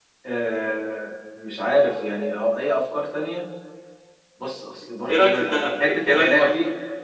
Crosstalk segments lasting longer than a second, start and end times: 5.1-6.5

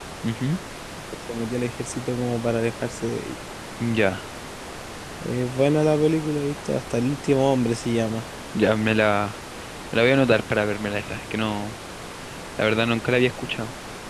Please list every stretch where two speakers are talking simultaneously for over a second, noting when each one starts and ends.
none

